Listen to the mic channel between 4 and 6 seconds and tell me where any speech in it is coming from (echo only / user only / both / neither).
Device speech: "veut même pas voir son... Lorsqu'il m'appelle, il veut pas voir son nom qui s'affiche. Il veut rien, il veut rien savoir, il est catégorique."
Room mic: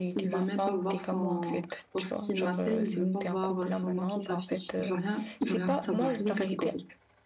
both